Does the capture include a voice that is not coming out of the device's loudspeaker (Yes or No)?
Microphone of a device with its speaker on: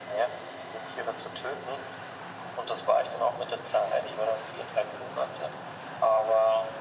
No